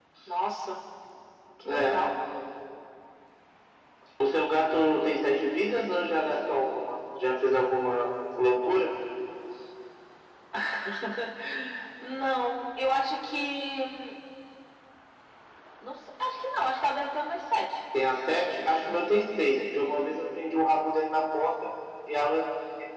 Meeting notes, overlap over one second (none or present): none